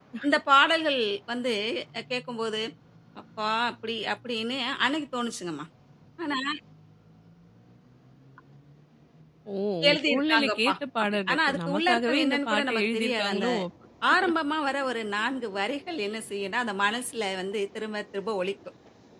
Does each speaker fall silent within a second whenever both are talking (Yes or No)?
No